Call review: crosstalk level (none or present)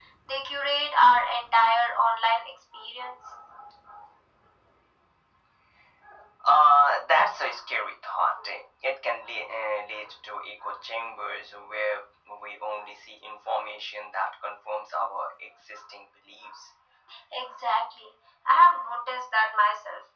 none